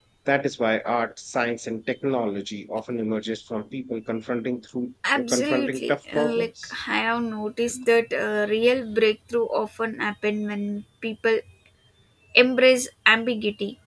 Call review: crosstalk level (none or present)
present